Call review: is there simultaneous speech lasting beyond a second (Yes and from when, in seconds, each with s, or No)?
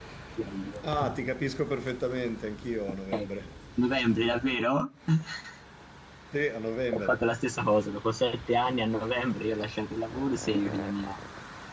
No